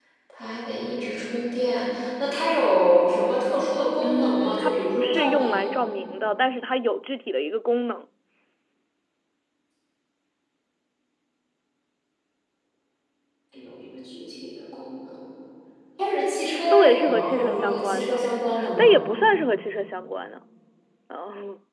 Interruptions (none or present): present